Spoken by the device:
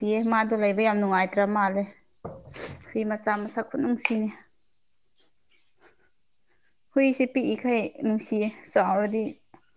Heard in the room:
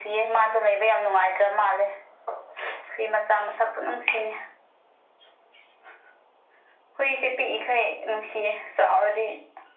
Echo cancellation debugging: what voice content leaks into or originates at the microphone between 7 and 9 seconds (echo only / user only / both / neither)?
echo only